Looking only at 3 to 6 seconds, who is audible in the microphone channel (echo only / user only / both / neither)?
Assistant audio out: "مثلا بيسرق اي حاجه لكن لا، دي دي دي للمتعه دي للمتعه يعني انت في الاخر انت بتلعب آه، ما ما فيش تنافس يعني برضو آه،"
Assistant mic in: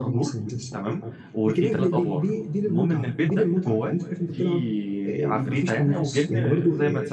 both